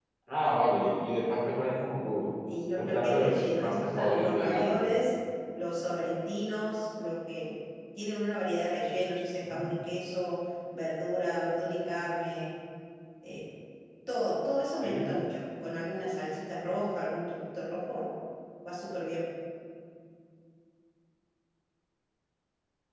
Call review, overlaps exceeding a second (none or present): present